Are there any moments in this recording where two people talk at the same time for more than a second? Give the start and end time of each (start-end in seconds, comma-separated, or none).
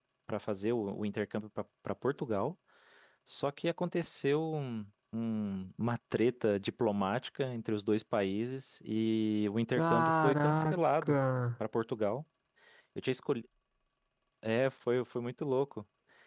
9.7-11.2